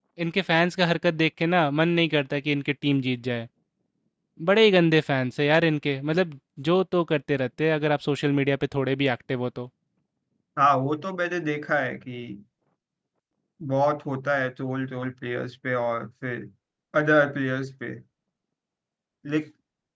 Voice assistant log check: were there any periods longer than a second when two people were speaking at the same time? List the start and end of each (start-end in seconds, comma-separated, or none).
none